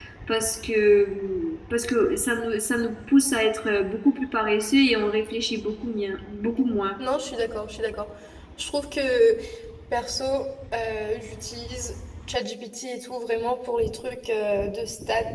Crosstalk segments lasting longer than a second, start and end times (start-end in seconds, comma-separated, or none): none